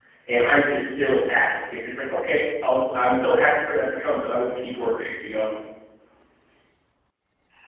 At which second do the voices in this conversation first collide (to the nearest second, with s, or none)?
none